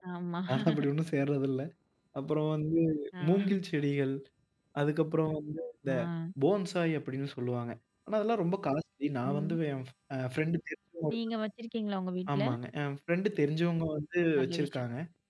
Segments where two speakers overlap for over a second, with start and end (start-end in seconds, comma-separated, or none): none